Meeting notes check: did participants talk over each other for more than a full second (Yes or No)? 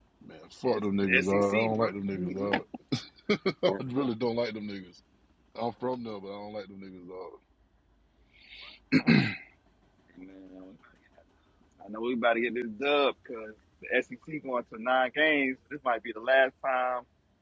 Yes